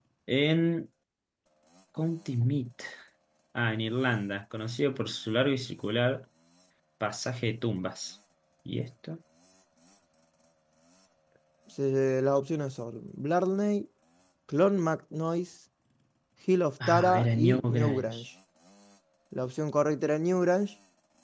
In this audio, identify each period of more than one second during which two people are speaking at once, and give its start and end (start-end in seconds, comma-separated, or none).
16.9-18.2